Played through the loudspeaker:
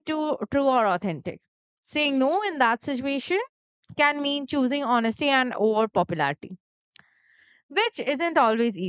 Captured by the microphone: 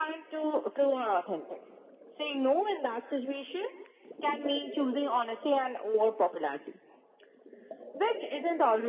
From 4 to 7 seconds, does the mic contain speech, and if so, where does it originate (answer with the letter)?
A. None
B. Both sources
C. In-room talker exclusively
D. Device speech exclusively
D